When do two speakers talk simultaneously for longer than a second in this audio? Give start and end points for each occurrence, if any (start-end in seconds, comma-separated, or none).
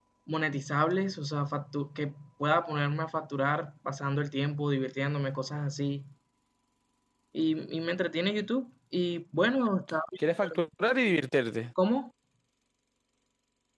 none